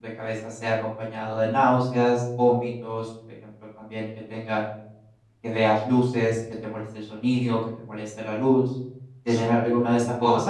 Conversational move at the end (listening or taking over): taking over